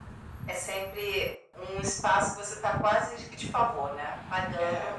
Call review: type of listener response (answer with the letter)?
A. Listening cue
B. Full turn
B